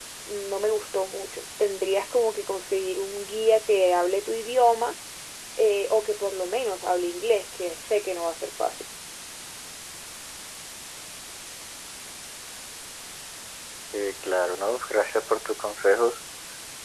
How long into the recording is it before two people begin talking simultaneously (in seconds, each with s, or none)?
none